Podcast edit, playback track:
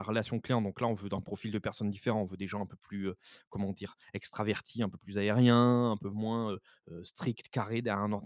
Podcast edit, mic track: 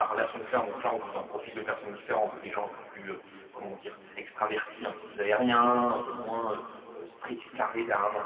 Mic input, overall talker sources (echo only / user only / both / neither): echo only